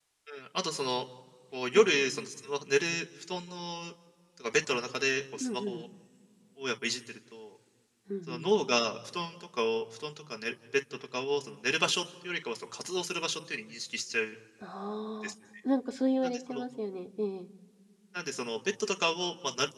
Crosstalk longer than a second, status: none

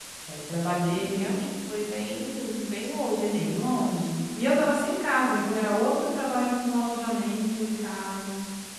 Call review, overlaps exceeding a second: none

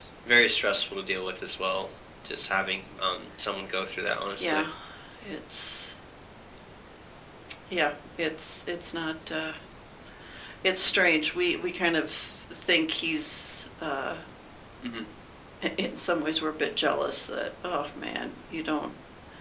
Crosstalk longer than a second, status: none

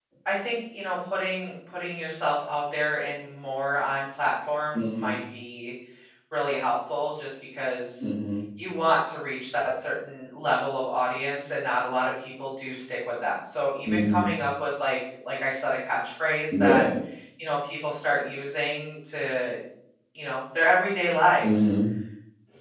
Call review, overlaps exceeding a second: none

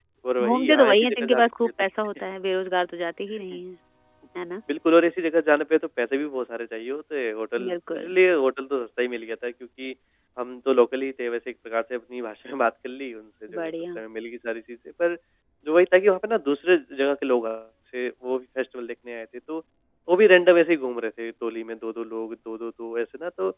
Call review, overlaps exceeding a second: present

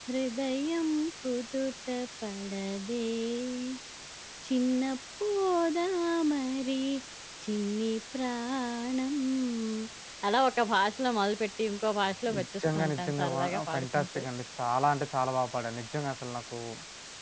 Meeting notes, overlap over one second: present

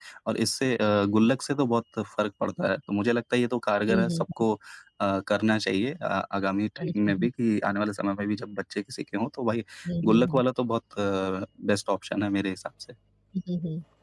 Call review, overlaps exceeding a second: none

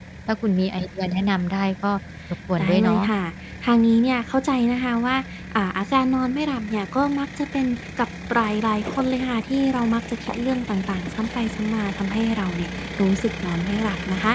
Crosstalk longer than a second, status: none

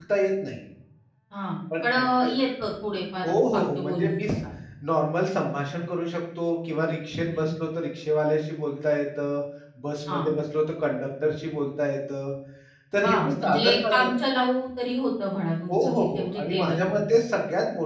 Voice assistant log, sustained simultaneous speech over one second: present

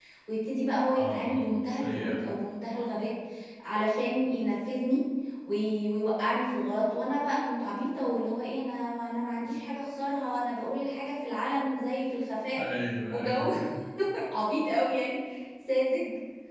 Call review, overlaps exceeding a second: present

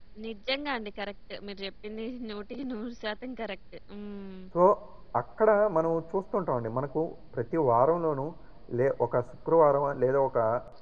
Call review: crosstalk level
none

